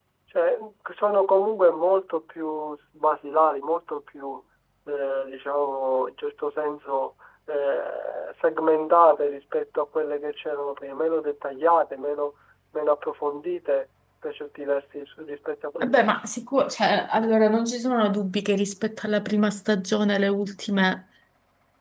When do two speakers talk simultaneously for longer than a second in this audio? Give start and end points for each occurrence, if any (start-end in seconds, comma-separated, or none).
none